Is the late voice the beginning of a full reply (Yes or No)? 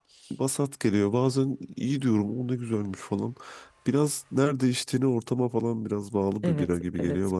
Yes